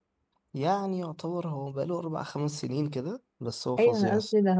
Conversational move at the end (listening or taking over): taking over